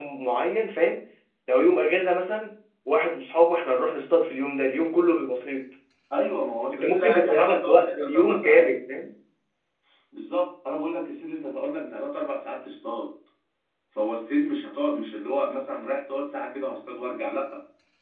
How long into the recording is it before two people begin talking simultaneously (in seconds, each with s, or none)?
6.7 s